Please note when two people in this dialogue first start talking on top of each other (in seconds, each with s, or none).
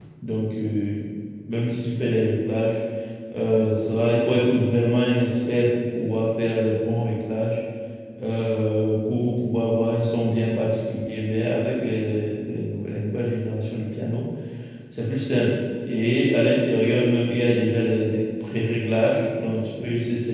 none